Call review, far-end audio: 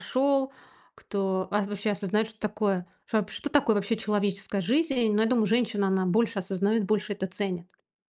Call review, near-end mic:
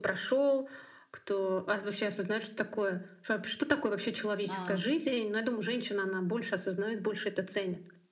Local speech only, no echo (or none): Ах.